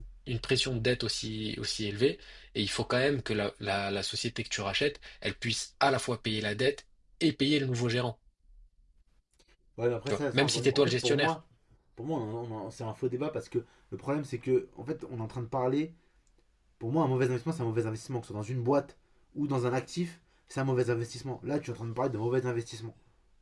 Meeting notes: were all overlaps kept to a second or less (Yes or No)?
No